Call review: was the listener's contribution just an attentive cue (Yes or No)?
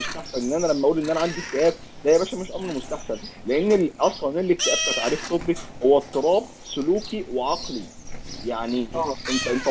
Yes